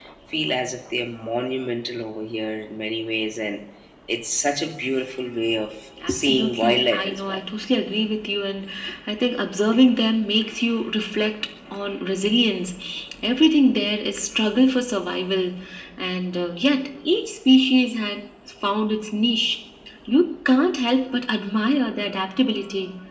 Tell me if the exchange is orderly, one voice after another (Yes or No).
No